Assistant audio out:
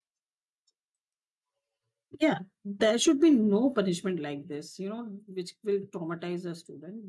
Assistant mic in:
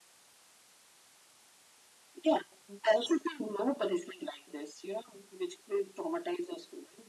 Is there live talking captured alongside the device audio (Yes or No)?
No